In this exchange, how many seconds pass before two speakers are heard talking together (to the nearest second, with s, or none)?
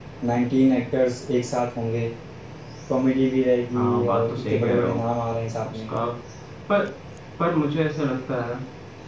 4 s